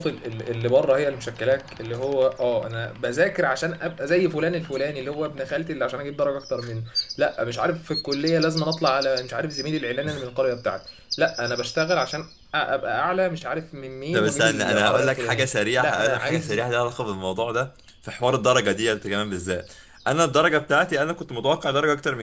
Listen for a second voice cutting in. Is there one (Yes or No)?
Yes